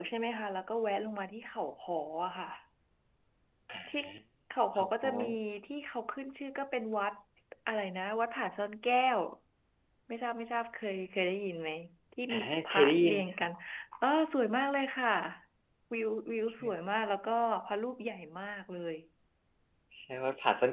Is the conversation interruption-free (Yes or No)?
No